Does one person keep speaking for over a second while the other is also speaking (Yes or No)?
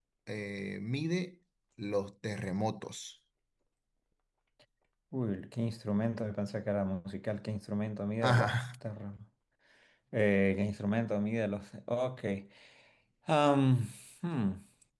No